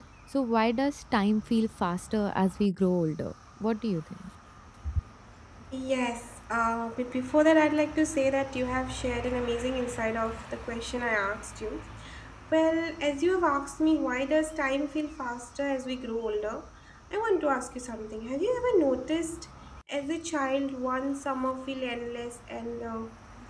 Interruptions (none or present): none